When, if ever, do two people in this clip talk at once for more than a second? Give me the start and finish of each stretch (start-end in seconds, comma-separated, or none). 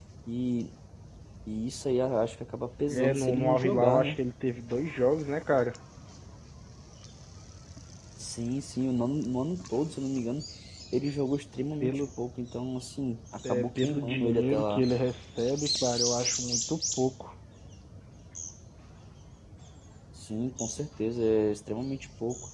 2.9-4.2, 13.5-14.9